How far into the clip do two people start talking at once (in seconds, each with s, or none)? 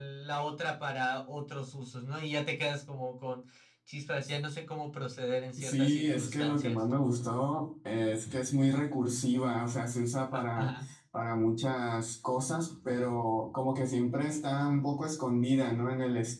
5.6 s